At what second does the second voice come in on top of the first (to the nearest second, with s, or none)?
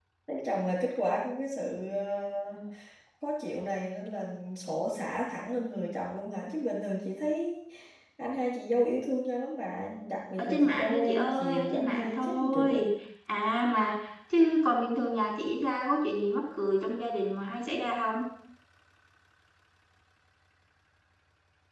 10 s